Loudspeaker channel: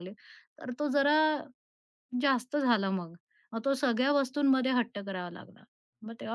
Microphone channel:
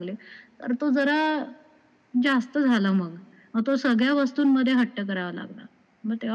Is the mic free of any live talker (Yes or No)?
Yes